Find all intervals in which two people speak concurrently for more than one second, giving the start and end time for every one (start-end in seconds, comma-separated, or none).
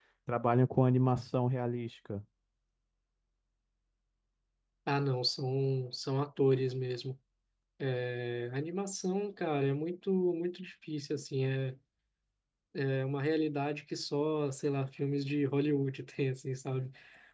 none